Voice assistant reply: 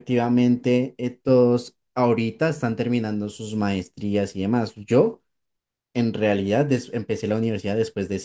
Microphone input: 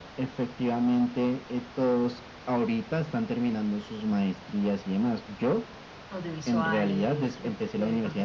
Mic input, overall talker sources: both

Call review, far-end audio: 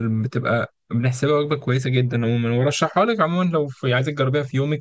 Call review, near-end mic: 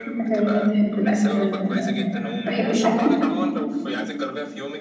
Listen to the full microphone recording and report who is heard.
both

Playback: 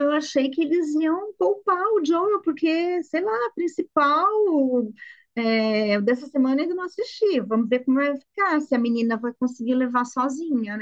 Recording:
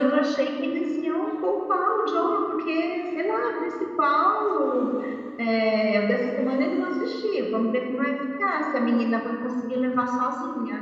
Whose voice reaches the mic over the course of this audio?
echo only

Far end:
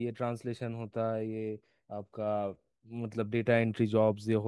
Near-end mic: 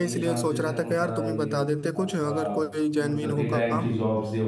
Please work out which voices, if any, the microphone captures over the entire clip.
both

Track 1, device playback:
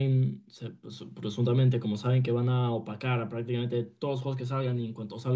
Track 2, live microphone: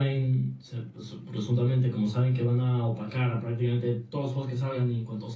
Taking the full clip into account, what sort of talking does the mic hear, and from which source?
echo only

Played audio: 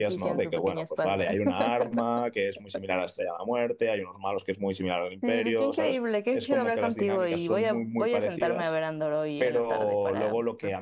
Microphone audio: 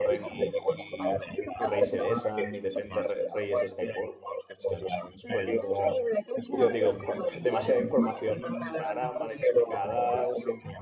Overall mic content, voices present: both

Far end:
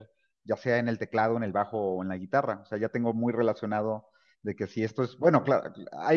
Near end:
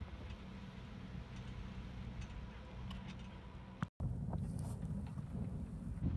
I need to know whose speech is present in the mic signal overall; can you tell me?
neither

